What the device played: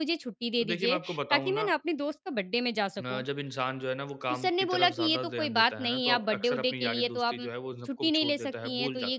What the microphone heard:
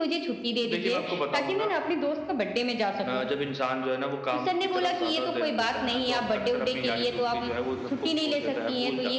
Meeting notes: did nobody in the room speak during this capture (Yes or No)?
Yes